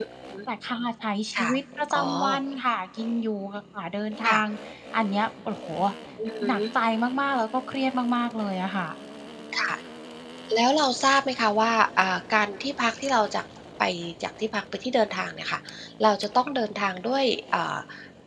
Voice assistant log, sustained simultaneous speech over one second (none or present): none